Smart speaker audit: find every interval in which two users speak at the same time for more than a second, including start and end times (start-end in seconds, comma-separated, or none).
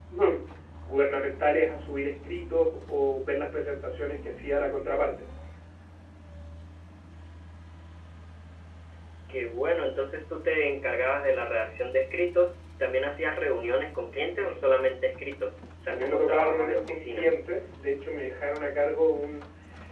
15.9-17.3